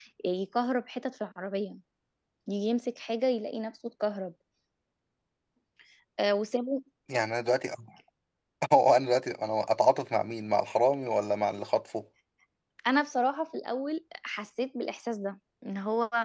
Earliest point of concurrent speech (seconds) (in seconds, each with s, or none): none